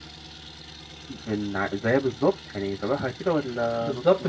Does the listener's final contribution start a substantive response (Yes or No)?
Yes